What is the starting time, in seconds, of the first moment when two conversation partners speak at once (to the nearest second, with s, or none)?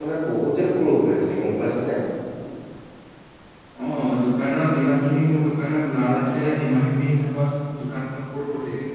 none